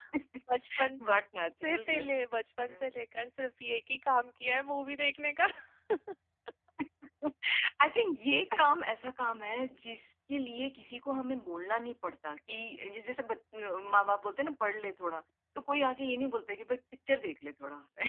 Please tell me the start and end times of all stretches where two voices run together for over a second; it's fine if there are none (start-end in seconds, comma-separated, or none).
none